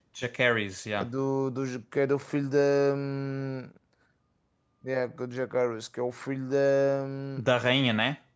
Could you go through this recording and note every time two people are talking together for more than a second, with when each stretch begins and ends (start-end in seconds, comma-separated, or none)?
none